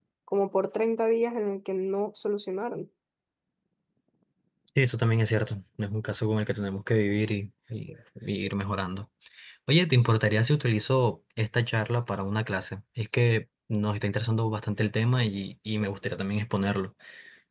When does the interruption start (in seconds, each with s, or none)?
none